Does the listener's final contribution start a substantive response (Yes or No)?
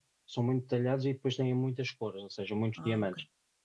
No